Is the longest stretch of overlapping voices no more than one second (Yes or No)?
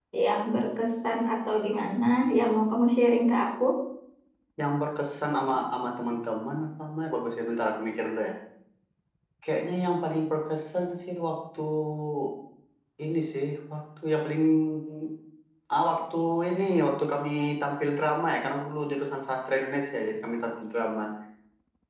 Yes